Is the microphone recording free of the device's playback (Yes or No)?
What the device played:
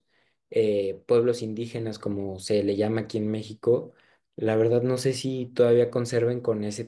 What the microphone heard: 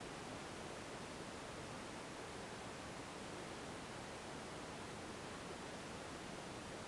Yes